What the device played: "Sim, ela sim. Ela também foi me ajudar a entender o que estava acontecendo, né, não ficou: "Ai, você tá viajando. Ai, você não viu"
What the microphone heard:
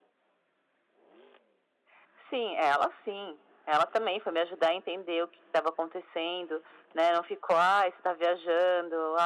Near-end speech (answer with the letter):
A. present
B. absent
B